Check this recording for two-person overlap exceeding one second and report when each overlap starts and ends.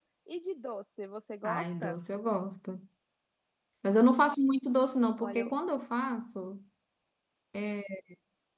none

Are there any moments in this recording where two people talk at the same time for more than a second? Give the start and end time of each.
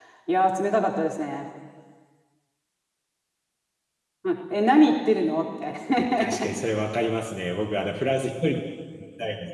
none

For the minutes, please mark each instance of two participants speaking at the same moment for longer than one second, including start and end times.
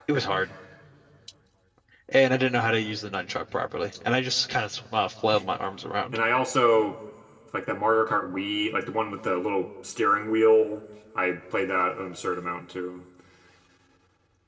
none

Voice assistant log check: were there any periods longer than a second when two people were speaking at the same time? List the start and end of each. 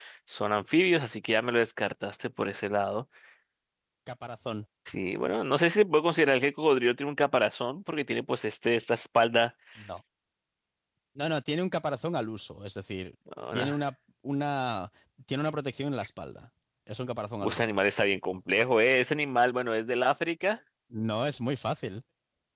none

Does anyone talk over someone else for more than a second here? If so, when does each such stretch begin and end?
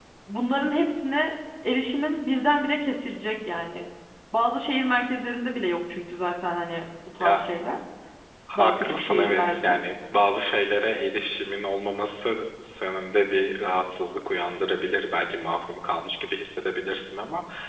8.6-9.8

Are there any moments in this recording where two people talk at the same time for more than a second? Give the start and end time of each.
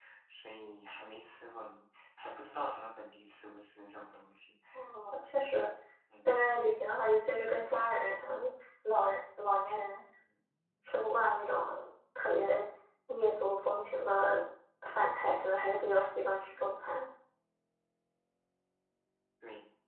none

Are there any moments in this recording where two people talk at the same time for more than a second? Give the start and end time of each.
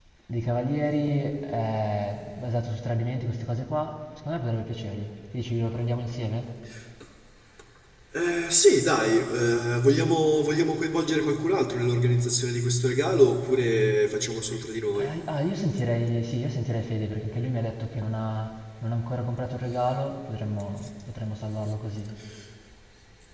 none

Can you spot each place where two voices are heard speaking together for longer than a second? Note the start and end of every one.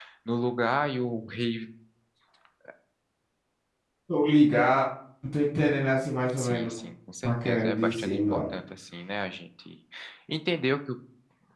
7.2-8.6

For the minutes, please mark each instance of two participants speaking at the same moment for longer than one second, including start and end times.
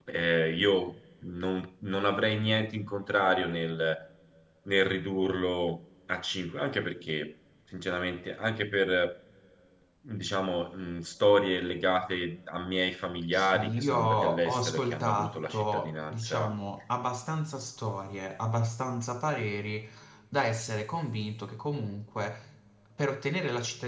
13.3-16.5

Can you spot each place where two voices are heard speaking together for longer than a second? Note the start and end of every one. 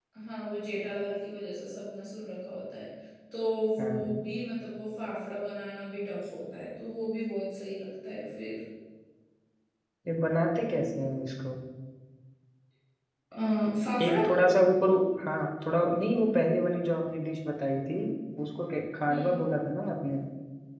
none

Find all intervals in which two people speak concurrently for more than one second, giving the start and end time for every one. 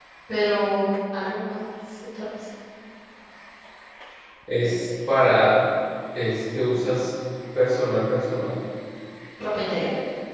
none

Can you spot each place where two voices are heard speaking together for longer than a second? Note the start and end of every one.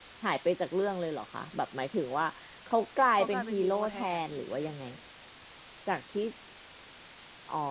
3.2-4.8

